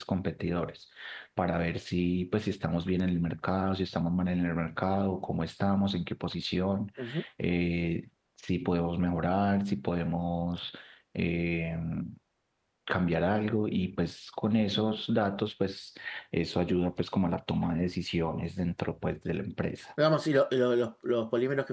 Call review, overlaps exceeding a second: none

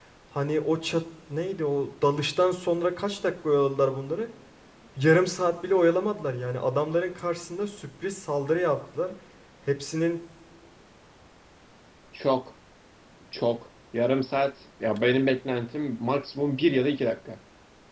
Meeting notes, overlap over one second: none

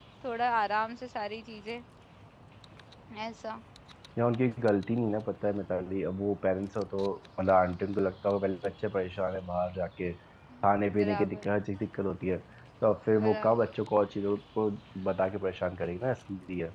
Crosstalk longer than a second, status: none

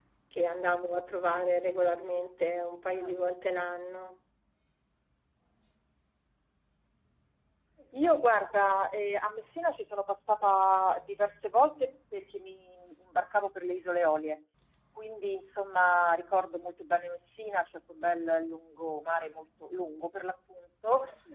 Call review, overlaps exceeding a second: none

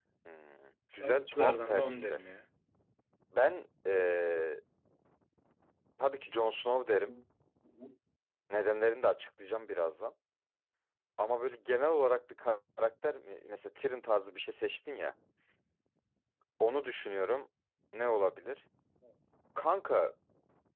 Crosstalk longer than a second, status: present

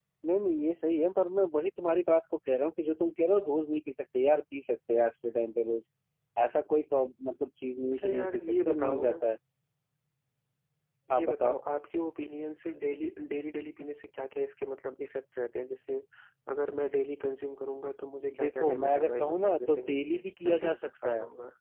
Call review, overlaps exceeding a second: present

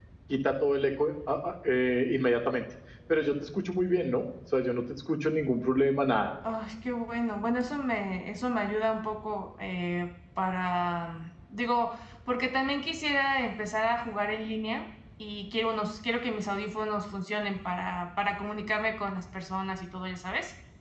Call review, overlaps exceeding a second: none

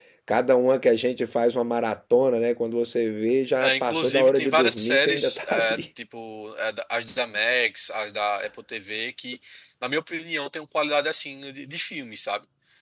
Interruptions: present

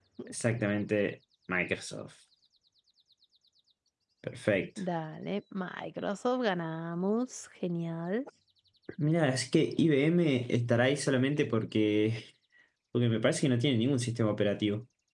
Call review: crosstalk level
none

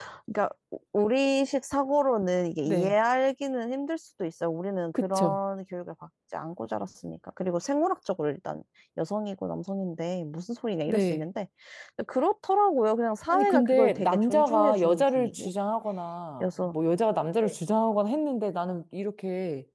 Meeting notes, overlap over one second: present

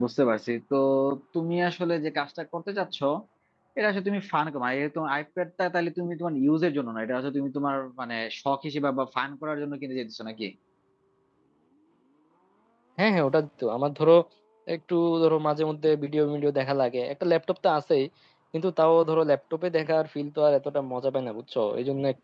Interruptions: none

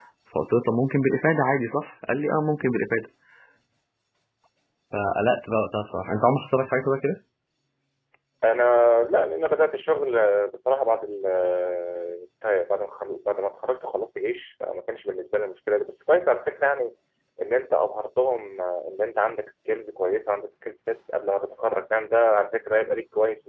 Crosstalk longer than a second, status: none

